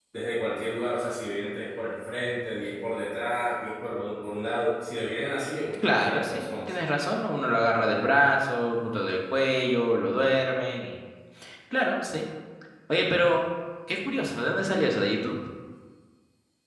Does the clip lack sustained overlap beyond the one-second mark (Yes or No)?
No